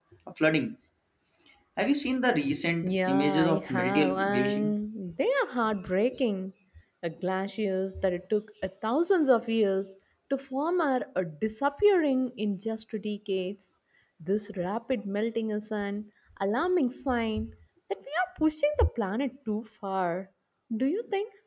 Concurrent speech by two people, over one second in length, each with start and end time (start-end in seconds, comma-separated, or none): 2.8-4.7